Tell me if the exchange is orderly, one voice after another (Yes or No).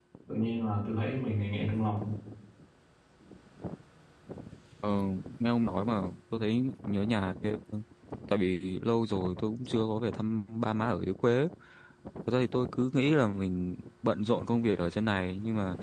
Yes